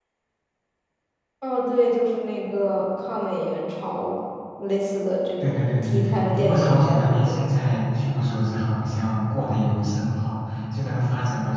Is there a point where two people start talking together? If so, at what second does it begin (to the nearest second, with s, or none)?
5 s